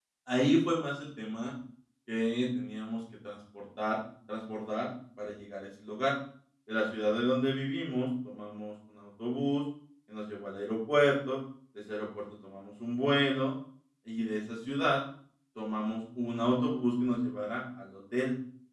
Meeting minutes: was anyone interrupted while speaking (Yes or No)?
No